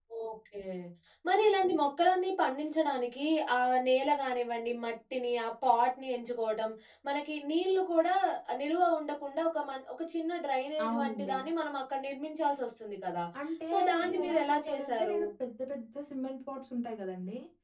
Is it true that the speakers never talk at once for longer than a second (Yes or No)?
No